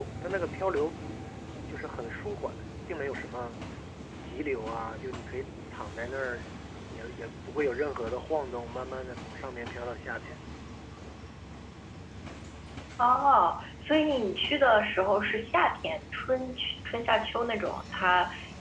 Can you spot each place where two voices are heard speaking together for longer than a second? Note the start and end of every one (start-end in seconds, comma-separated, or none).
none